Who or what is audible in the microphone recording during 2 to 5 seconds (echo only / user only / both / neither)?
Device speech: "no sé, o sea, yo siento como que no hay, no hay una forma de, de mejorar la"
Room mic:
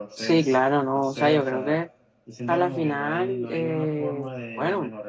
both